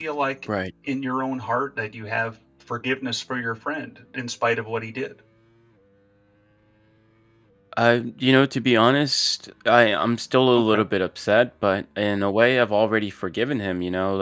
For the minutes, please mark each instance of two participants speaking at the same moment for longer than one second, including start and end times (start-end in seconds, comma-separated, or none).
none